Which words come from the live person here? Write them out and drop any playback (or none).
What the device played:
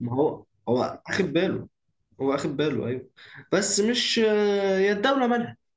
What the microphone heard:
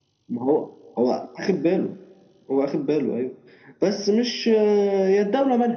none